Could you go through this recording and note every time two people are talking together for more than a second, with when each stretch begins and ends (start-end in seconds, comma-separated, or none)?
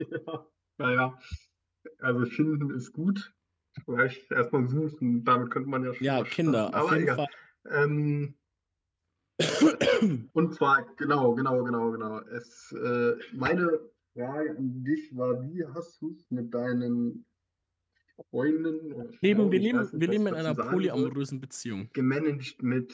6.0-7.2, 19.3-21.1